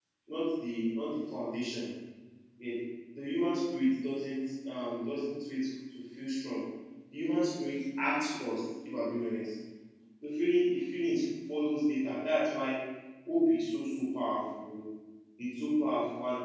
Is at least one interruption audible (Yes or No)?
No